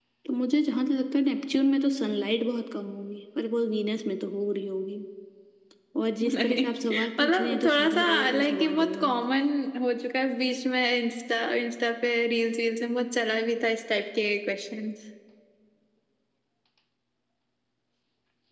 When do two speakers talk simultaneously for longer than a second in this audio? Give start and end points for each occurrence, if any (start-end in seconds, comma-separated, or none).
7.2-9.2